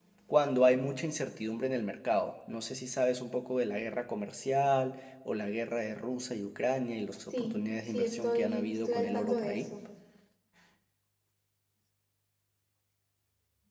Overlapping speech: Yes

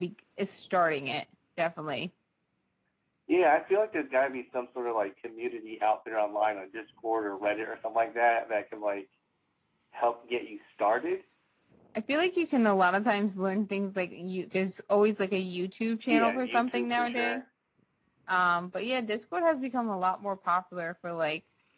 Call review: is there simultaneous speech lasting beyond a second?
Yes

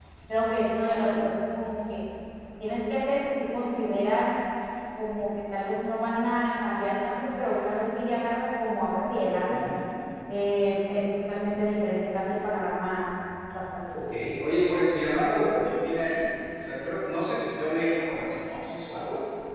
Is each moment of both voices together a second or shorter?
Yes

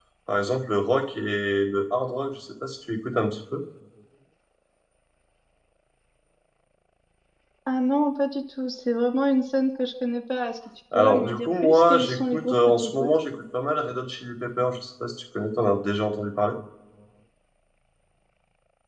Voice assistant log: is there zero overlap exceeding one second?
No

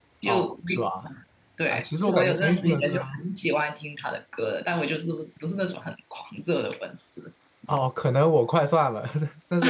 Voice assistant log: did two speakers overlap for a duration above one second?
Yes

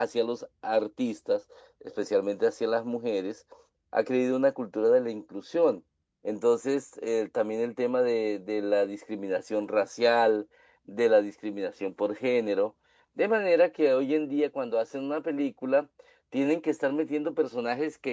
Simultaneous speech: No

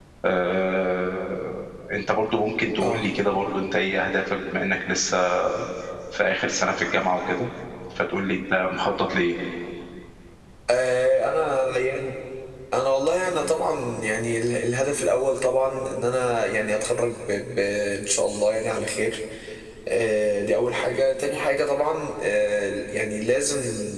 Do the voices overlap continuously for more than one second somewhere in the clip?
No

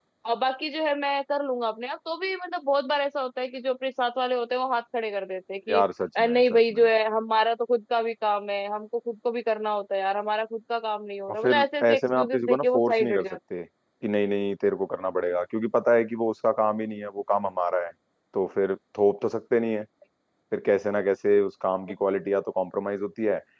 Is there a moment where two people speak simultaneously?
Yes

